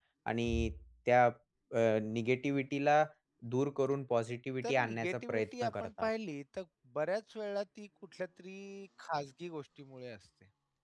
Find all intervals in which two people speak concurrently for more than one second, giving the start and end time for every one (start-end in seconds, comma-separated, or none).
4.6-6.1